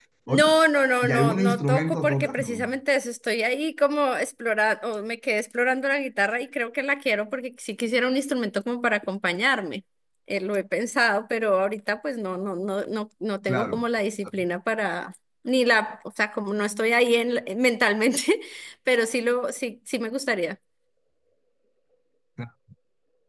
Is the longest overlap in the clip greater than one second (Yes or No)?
Yes